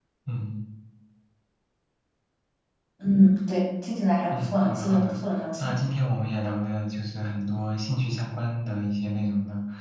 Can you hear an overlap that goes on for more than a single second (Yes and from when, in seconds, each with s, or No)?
Yes, from 4.3 s